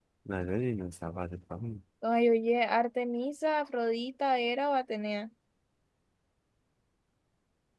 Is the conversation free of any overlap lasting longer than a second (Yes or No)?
Yes